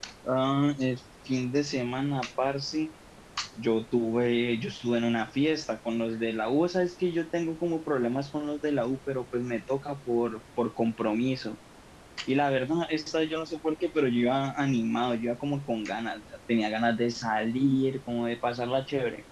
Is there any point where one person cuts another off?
No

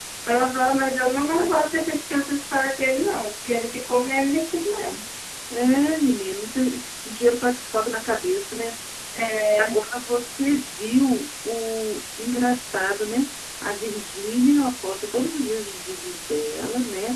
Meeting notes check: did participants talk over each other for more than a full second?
No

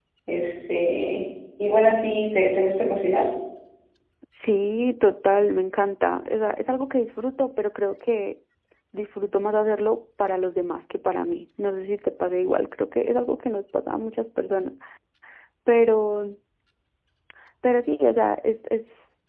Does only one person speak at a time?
Yes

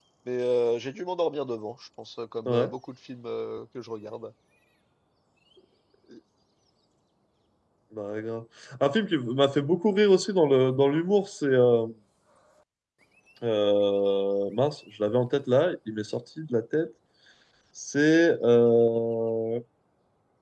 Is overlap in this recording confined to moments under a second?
Yes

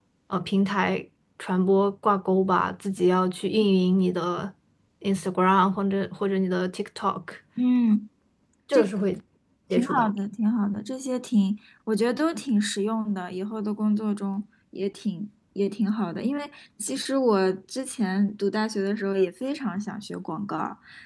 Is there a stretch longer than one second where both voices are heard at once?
No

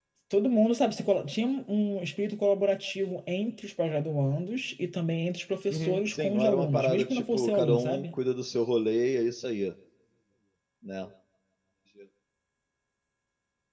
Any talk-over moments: Yes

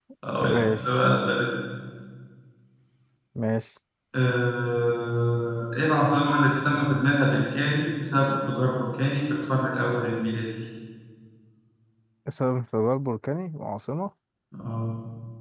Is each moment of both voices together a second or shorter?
Yes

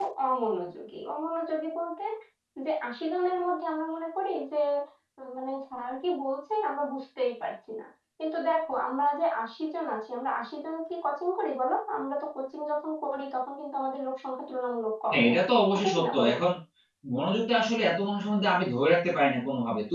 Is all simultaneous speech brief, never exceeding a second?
No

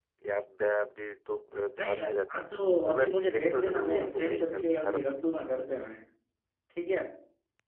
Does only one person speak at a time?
No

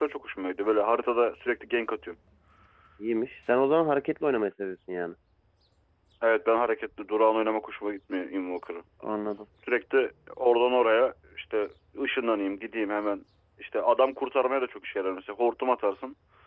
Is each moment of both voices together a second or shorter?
Yes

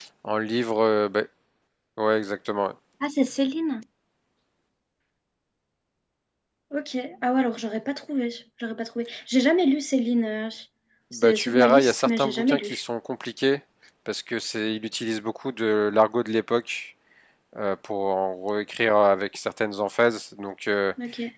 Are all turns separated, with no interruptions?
No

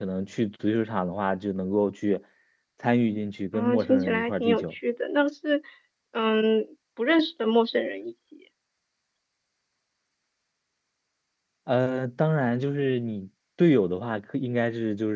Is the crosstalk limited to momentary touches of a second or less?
No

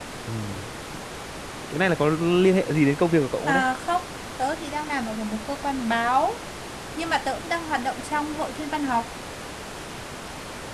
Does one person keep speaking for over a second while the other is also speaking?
No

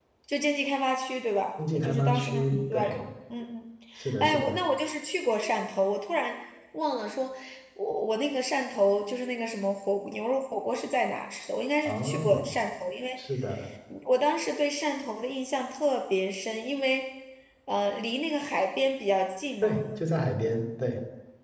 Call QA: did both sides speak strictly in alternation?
No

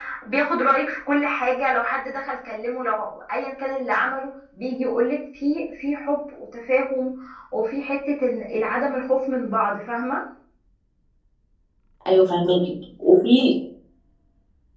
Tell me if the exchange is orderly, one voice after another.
Yes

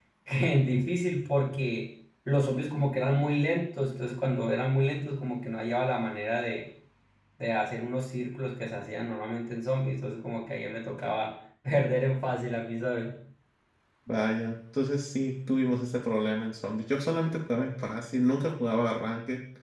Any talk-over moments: No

